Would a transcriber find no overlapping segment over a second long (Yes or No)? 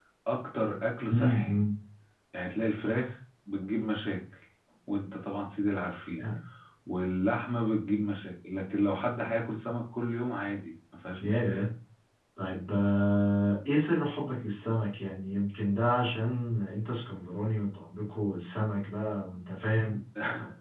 Yes